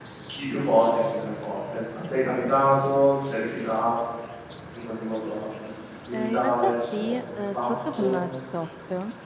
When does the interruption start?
6 s

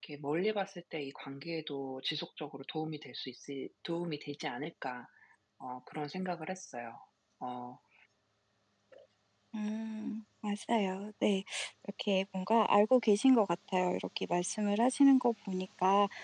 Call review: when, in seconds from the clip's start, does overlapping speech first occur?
none

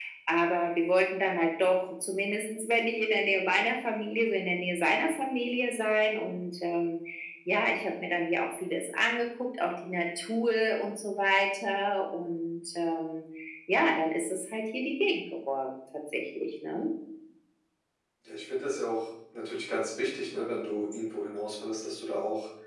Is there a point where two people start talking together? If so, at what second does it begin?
none

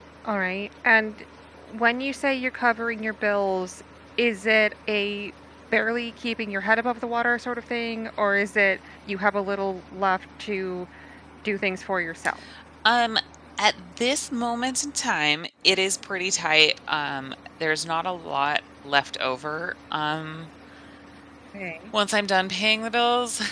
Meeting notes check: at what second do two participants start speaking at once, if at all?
none

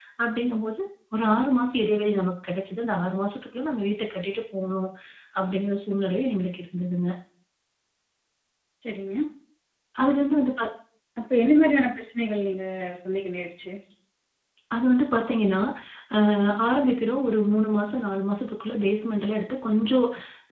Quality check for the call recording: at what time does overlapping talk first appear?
none

